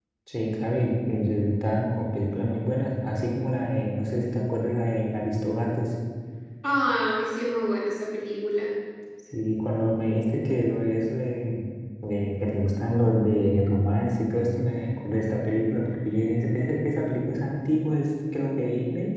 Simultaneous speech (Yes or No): No